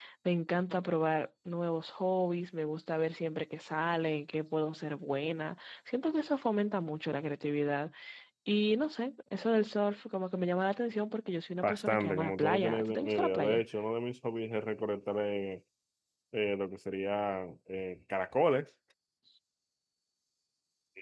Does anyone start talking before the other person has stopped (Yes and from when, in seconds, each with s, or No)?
Yes, from 11.6 s